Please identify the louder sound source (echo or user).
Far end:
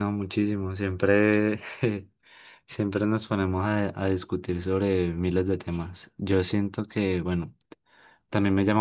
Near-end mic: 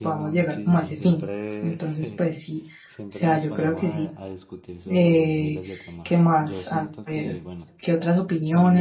user